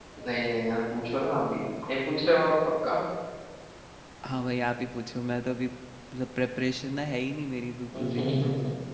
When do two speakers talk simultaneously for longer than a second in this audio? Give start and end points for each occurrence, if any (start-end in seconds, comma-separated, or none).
none